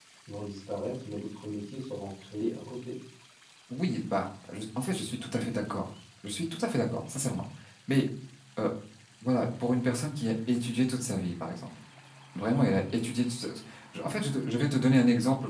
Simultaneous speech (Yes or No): No